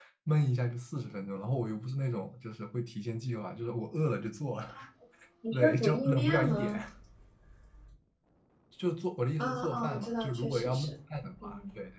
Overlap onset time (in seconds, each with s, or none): 5.5 s